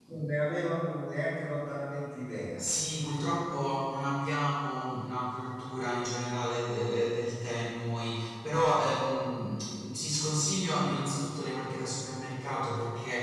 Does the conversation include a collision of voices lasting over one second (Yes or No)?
No